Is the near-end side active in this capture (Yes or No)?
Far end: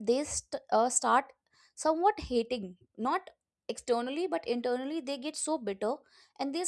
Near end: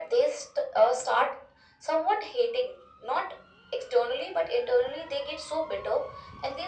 No